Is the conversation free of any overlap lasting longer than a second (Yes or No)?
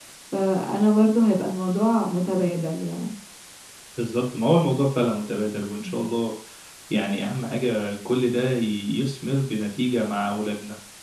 Yes